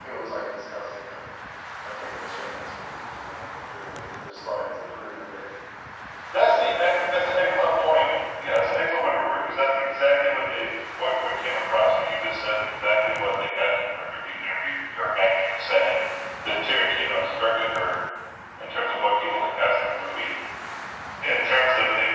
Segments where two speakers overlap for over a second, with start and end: 6.3-8.1

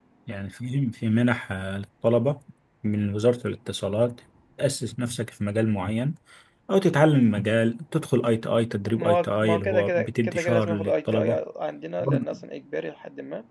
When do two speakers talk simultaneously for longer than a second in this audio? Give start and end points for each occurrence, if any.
8.9-11.4

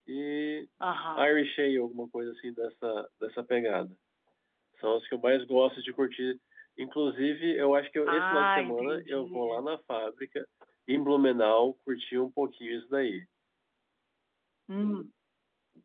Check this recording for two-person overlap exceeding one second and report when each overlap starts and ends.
8.1-9.6

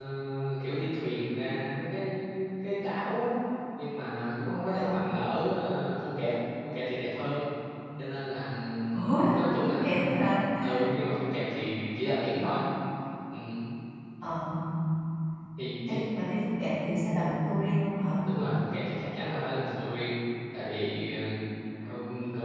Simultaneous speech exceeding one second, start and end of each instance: none

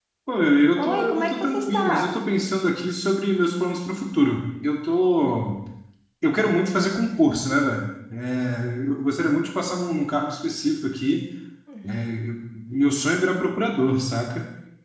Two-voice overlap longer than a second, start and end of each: 0.7-2.1

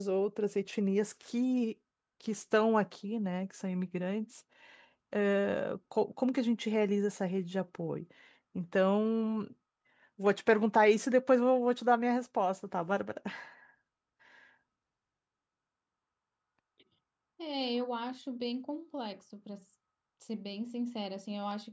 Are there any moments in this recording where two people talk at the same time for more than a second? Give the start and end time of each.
none

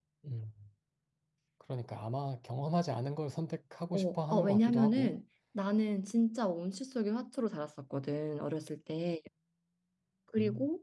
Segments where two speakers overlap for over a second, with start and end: 3.9-5.1

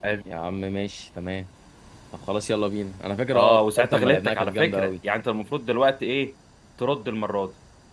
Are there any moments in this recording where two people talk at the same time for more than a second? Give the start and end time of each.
3.3-4.9

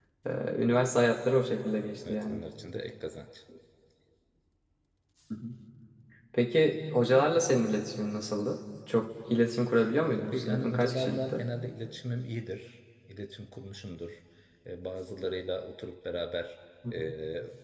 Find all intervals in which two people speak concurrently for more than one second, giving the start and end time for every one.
10.2-11.4

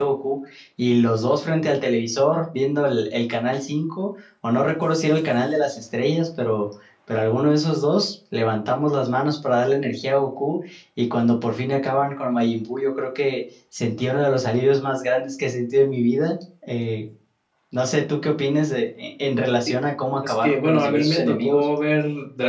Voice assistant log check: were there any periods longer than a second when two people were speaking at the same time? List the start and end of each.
20.3-21.7

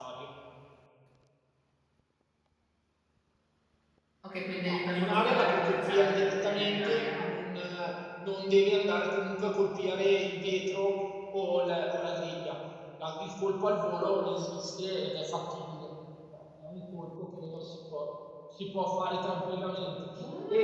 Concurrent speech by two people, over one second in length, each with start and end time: 4.6-7.2

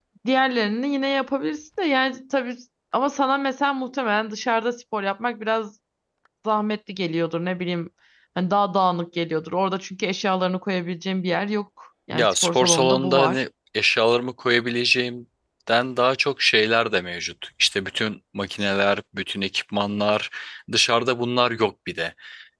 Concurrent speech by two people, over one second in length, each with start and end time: 12.1-13.4

